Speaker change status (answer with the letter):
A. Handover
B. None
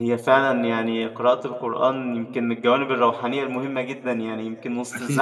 B